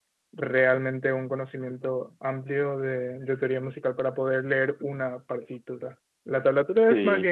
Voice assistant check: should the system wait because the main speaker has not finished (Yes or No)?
Yes